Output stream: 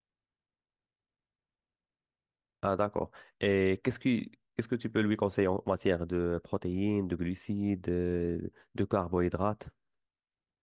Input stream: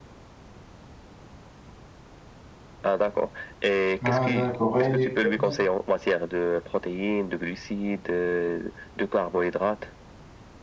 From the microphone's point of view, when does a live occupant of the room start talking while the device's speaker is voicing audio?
4.0 s

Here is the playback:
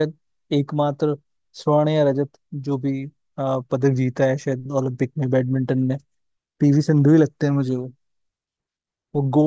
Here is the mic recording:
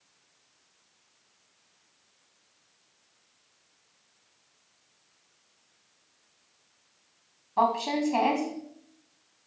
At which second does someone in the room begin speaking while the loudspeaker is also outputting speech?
7.6 s

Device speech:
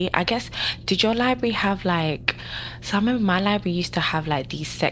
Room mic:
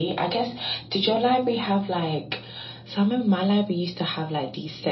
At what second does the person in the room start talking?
none

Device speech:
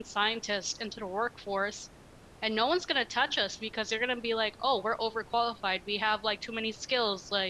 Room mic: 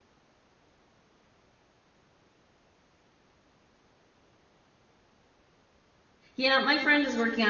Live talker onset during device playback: 6.3 s

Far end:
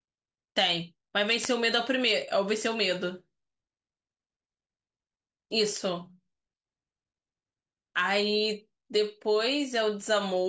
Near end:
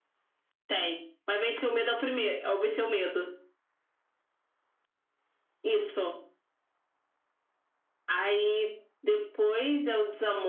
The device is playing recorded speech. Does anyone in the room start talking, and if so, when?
none

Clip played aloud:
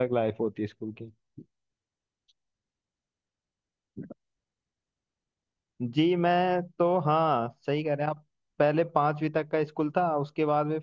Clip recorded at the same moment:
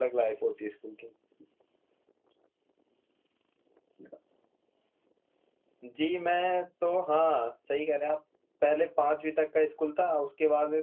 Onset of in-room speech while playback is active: none

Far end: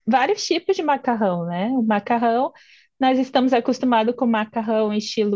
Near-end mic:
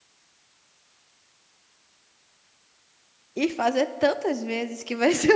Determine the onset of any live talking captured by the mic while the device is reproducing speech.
3.4 s

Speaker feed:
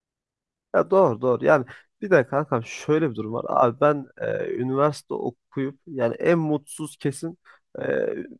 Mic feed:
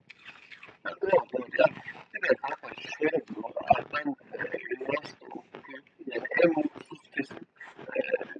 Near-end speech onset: none

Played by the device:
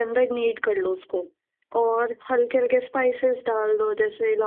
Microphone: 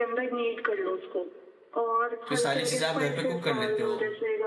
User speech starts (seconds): 2.3 s

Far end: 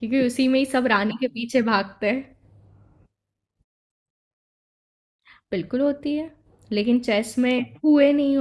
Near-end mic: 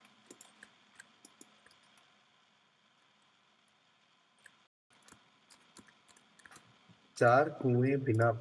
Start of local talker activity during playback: 7.2 s

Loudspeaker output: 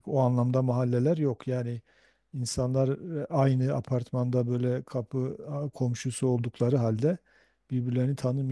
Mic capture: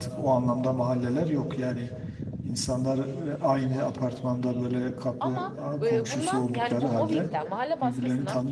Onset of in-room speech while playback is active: 5.2 s

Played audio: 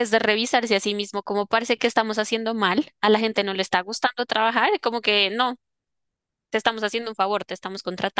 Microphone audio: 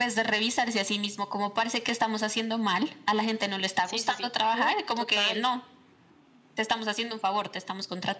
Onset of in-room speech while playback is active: 3.8 s

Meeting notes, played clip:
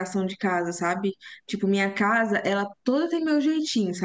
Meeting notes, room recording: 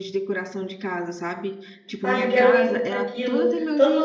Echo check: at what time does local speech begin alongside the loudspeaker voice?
2.0 s

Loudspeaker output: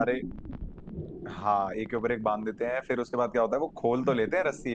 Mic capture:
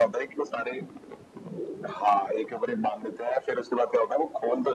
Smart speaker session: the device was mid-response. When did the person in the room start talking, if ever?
none

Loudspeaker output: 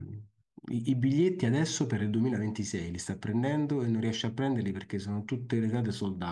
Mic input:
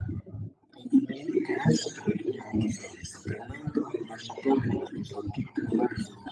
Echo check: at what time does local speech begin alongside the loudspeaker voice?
none

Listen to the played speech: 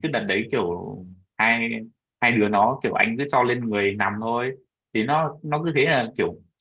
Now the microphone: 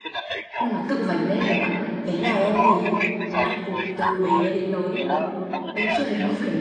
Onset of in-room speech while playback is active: 0.6 s

